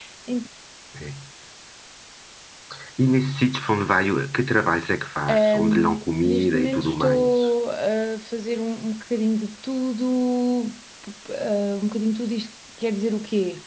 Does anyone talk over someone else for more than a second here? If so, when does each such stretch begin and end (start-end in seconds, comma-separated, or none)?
5.3-7.4